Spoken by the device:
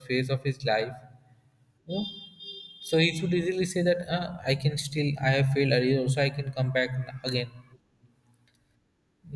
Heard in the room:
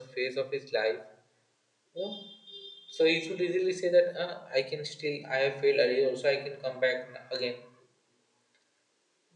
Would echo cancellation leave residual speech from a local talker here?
No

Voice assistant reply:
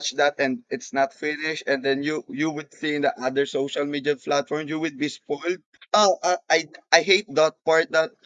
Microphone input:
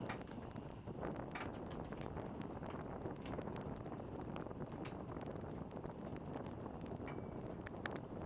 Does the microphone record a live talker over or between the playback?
No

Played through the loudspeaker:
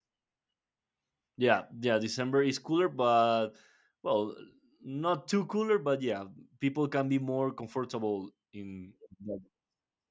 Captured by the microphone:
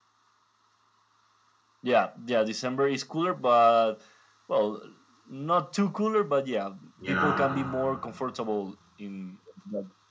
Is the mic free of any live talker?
No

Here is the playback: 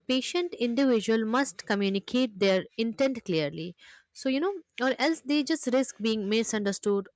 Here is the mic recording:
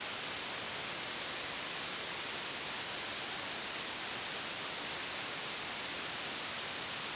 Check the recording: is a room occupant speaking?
No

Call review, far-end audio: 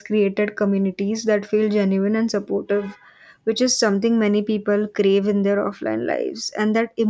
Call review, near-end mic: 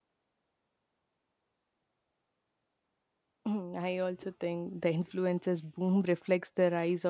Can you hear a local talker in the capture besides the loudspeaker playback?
Yes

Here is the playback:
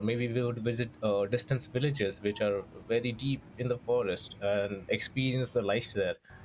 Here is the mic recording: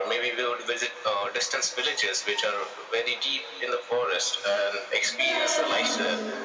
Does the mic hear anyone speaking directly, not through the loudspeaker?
Yes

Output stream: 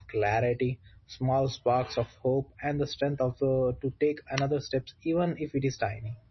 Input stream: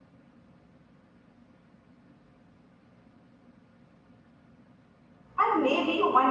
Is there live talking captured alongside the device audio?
Yes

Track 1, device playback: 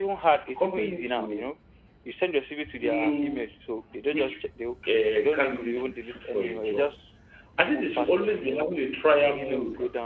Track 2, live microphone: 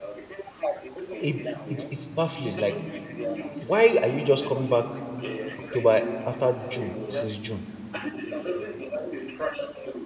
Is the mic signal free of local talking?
No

